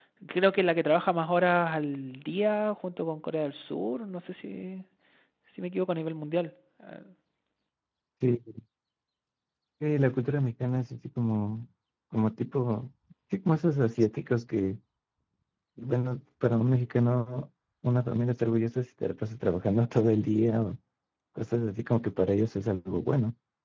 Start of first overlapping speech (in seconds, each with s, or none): none